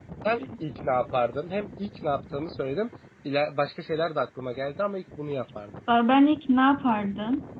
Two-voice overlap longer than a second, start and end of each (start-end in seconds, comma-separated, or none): none